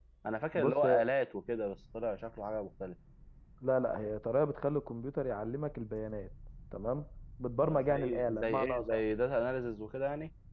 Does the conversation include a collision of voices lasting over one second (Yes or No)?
Yes